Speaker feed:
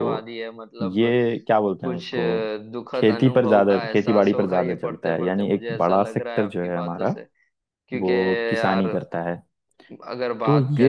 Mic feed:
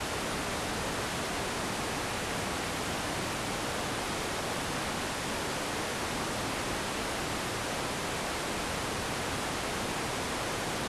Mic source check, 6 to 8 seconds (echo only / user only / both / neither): neither